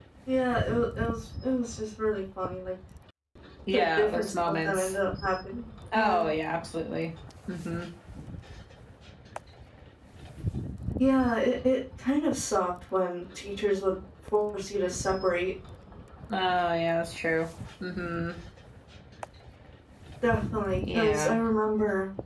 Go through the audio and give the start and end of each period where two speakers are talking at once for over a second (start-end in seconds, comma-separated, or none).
3.7-5.0